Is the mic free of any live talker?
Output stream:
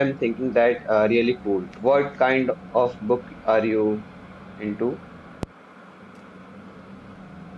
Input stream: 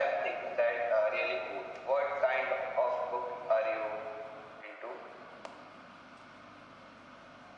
Yes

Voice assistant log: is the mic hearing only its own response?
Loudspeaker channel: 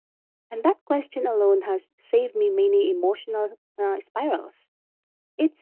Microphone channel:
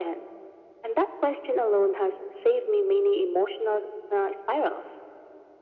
Yes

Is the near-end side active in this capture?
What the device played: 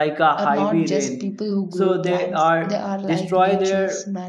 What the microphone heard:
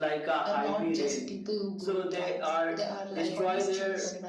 Yes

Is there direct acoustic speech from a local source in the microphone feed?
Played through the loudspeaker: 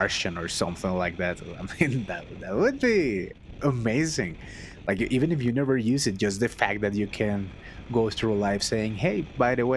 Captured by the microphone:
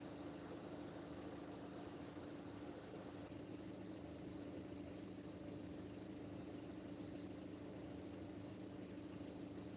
No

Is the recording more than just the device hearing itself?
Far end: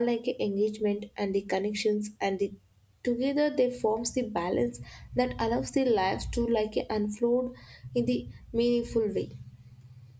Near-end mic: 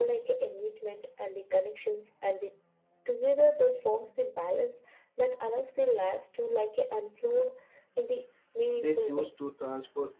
Yes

